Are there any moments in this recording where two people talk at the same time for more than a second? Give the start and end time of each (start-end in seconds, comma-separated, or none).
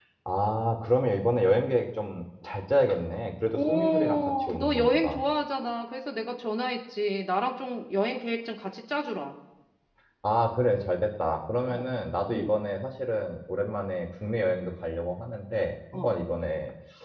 3.5-5.2